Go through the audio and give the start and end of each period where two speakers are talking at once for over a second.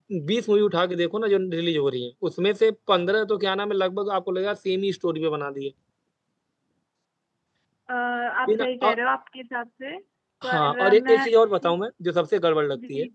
10.4-11.8

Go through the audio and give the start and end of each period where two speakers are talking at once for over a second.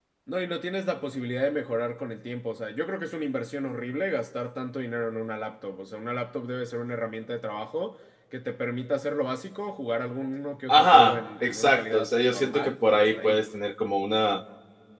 10.7-13.4

